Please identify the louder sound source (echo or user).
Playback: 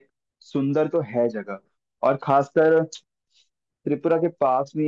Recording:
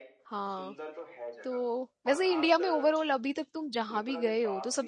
user